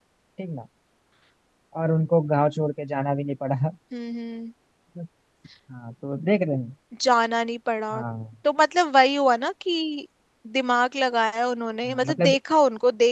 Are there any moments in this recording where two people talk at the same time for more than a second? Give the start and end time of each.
none

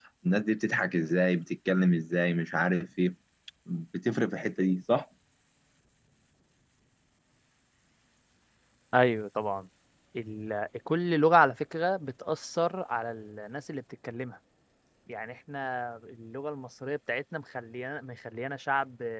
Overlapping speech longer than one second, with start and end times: none

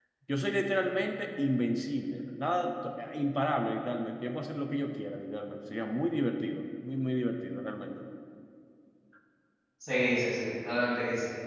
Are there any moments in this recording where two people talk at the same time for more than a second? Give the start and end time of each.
none

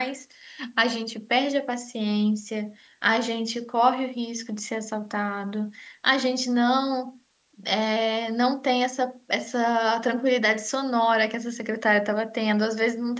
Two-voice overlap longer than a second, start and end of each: none

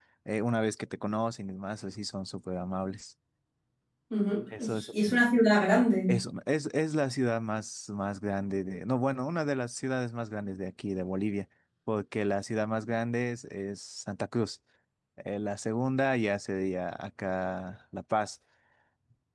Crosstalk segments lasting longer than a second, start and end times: none

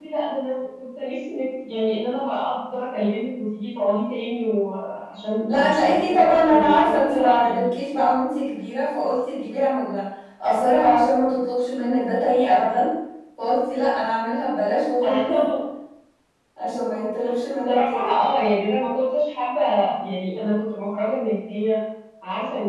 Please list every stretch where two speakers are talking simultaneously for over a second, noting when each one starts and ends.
5.4-7.7

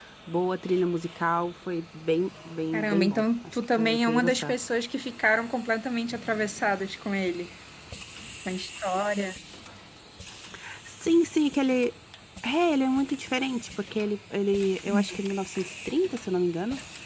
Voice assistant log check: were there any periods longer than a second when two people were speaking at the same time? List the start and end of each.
2.7-4.5

